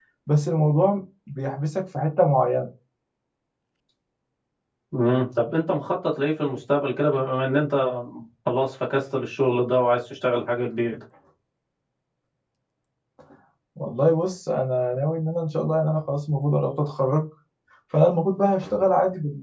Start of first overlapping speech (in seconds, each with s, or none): none